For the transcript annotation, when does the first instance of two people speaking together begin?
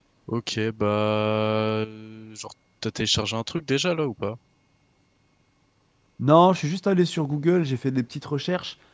none

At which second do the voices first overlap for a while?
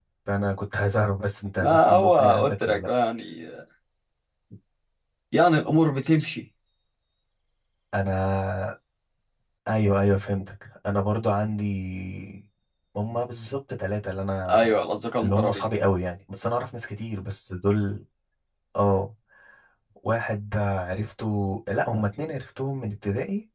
2 s

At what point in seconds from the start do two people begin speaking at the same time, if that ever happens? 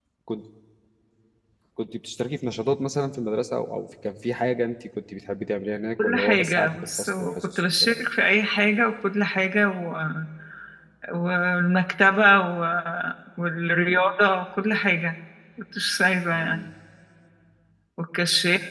6 s

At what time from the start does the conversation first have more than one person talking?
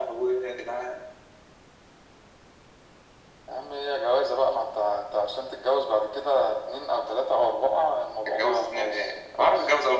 8 s

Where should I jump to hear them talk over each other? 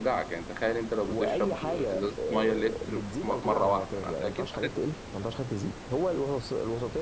1 s

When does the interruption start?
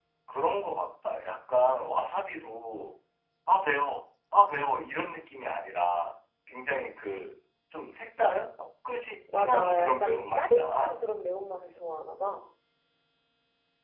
9 s

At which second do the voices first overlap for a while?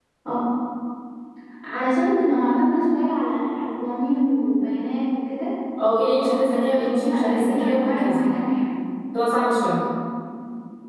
6 s

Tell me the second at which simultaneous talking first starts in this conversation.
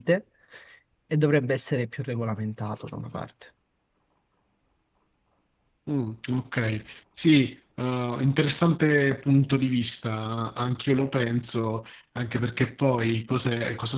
none

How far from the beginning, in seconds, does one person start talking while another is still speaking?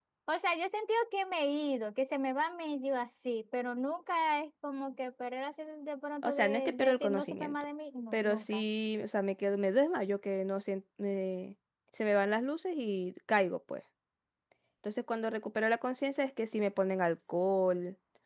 6 s

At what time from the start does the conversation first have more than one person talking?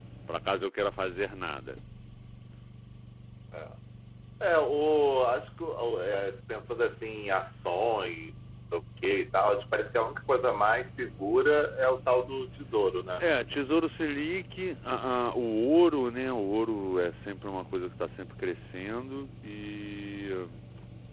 none

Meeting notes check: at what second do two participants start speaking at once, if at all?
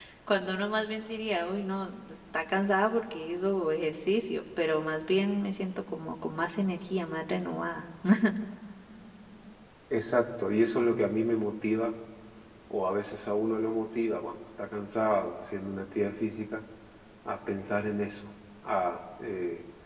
none

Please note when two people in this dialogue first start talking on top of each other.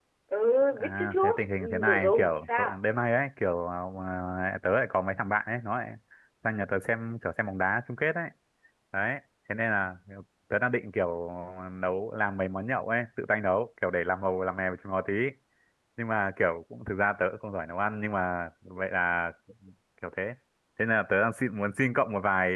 1 s

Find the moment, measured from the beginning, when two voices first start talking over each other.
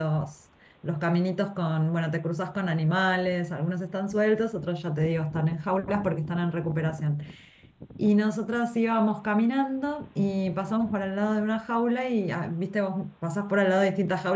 none

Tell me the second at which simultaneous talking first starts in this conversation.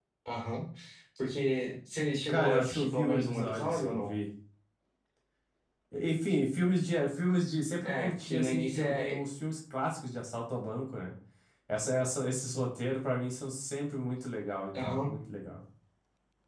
2 s

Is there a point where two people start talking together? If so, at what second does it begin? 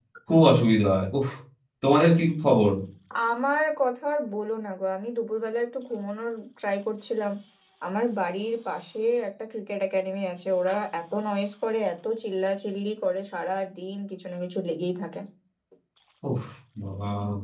none

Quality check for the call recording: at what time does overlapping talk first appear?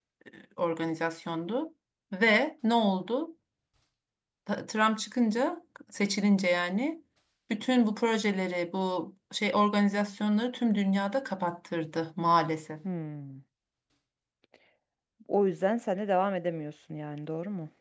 none

